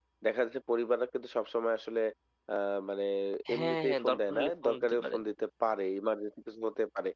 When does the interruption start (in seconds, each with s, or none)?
3.5 s